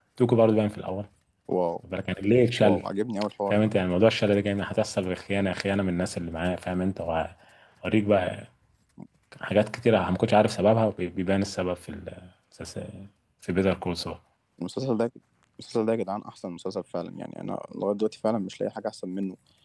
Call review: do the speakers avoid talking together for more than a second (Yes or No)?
Yes